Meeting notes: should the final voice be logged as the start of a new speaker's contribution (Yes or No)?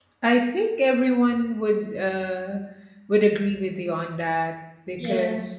No